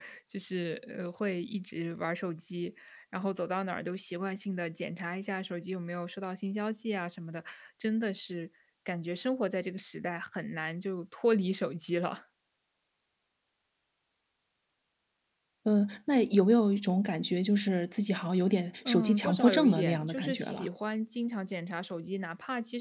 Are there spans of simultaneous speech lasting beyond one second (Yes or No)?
Yes